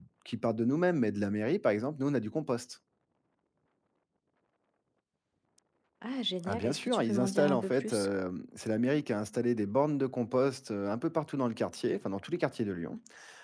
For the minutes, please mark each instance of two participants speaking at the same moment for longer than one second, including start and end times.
6.5-8.1

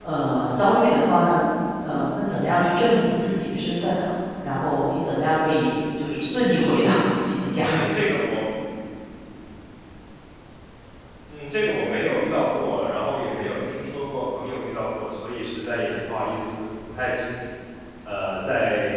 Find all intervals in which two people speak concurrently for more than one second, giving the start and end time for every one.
none

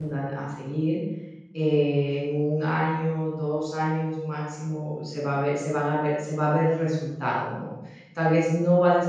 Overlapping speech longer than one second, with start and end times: none

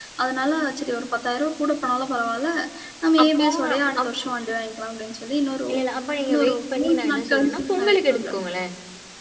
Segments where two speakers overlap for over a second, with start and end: 6.3-8.3

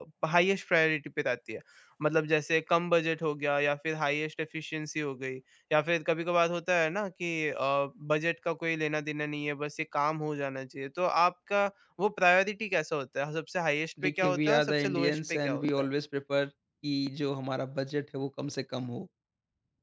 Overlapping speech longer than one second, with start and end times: 14.0-15.9

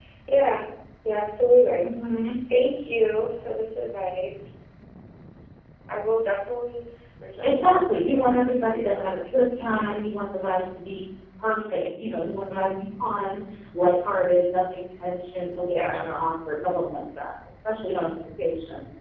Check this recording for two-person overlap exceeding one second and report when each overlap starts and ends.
7.4-10.0

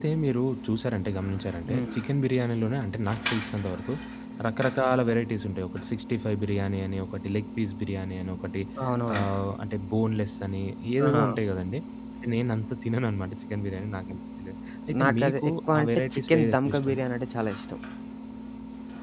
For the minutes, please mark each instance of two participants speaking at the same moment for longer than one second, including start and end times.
15.0-16.9

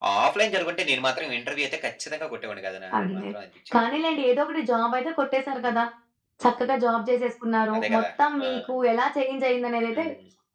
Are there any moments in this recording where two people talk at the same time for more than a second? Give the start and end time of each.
none

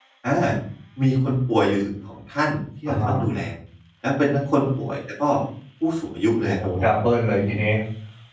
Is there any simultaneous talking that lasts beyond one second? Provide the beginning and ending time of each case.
none

